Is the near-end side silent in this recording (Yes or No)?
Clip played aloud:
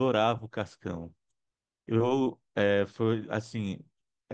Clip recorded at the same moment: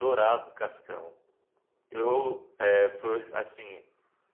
Yes